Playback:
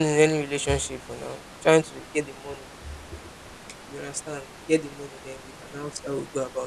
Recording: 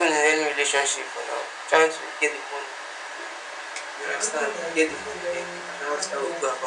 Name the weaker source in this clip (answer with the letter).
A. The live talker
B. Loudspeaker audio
A